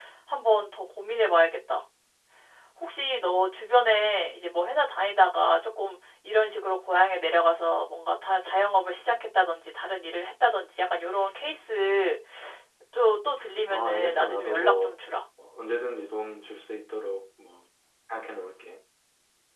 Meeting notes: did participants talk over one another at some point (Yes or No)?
Yes